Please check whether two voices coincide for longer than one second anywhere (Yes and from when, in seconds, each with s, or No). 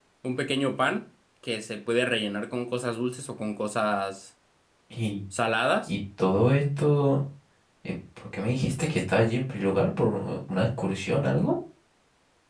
No